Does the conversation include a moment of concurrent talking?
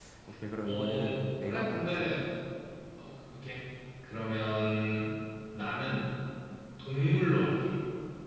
Yes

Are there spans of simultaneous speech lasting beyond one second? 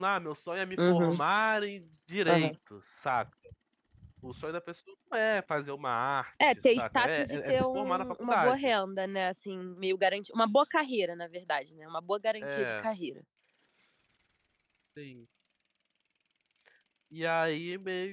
Yes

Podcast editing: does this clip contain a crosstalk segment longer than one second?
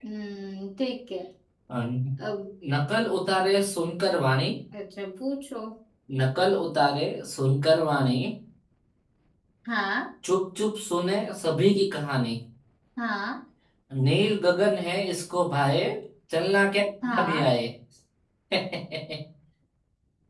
No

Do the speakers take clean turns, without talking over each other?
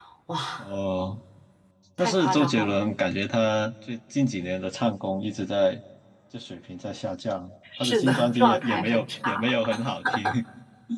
No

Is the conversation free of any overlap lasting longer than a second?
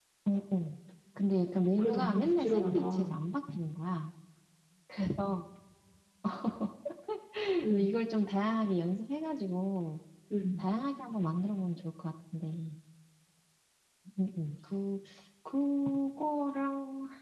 No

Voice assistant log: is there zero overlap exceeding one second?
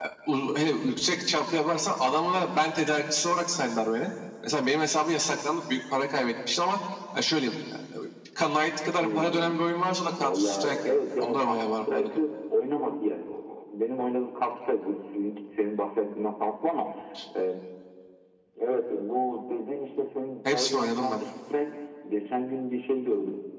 No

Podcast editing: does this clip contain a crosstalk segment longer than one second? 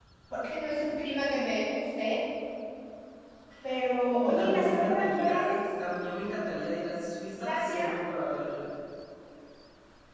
Yes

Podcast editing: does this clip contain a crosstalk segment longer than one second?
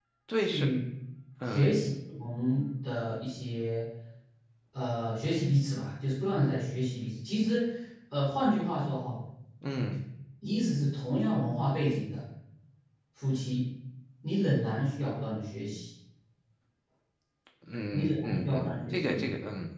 Yes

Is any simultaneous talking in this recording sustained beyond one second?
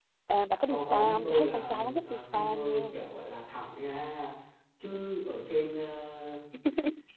Yes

